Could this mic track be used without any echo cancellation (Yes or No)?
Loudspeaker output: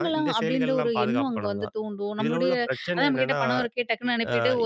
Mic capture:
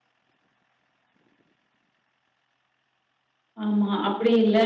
Yes